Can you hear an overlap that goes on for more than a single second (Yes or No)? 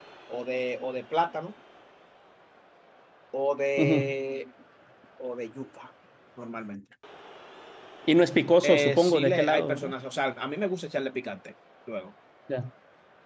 Yes